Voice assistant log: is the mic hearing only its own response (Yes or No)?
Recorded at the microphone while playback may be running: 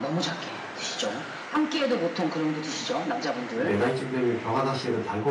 No